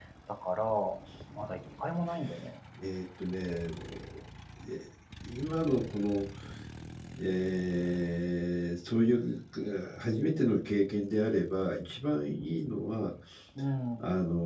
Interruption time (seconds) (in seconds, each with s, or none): none